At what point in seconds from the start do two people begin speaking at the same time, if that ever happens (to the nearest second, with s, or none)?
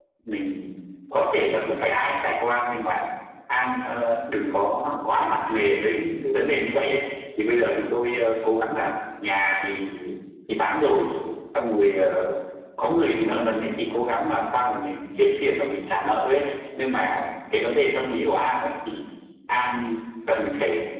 none